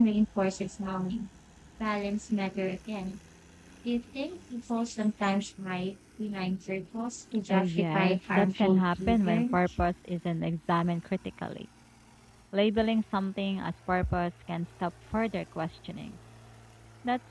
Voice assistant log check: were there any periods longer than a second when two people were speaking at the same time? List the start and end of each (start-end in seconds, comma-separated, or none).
7.5-9.6